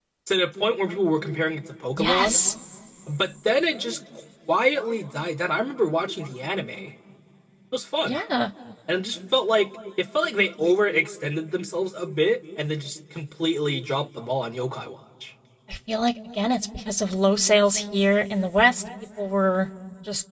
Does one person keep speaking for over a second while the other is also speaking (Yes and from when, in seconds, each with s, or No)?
No